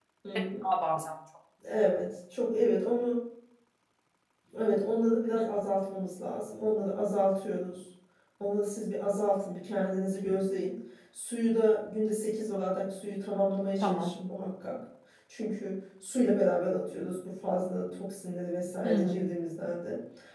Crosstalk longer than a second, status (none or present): none